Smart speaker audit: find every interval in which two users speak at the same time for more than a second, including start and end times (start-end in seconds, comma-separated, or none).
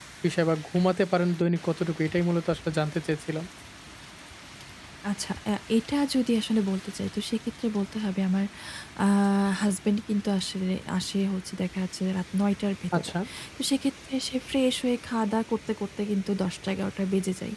none